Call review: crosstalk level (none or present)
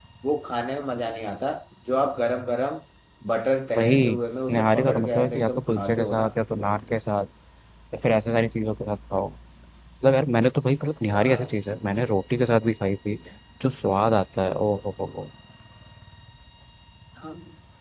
present